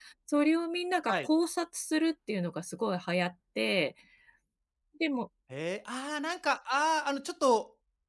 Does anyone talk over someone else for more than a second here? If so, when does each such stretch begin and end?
none

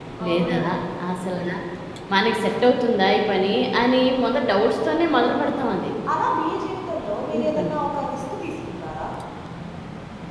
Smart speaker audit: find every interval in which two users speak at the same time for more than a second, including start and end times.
none

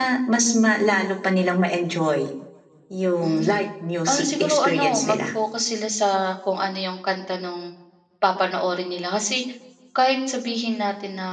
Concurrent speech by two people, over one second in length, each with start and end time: 4.1-5.3

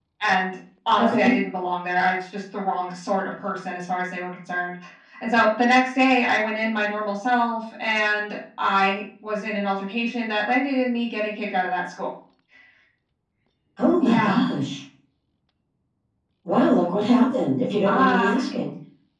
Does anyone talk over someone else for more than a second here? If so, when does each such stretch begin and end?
none

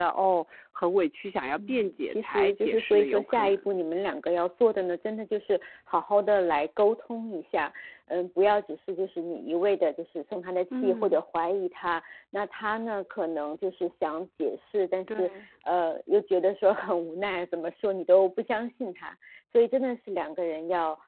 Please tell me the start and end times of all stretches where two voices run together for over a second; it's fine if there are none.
1.6-3.7

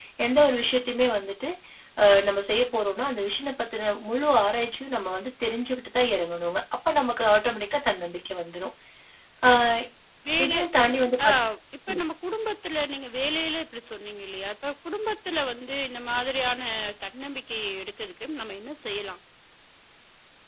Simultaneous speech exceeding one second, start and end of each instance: none

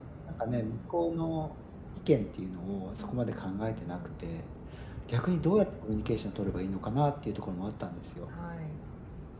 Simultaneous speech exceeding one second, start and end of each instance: 2.9-4.1

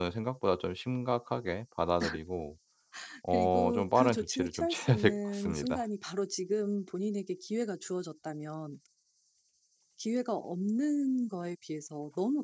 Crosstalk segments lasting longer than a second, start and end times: 3.3-5.8

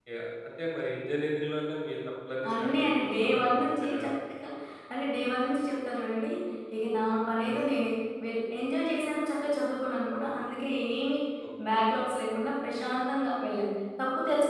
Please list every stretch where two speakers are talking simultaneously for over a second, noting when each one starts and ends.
2.5-4.1

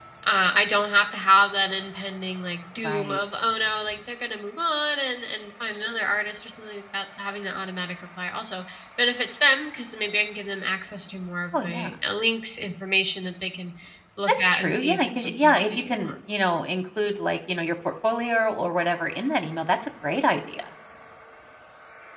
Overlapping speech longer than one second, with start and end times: 14.2-16.1

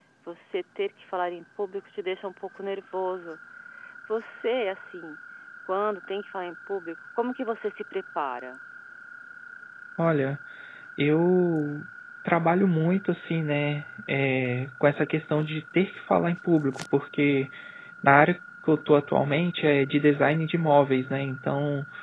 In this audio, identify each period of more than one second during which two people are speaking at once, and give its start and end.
none

